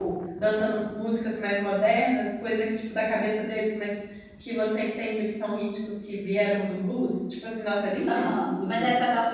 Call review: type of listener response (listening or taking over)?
taking over